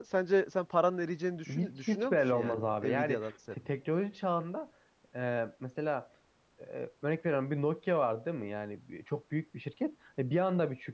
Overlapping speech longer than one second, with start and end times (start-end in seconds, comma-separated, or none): 1.5-3.3